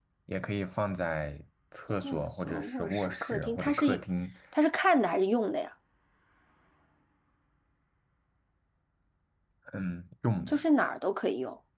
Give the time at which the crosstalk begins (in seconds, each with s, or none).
2.0 s